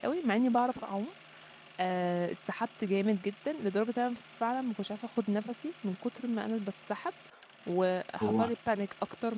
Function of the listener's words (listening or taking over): listening